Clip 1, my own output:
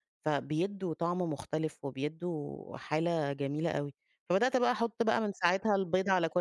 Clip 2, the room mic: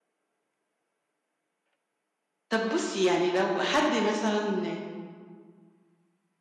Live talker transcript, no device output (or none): طب بُصّي يعني لو حد مثلًا